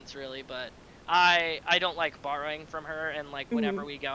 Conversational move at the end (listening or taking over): listening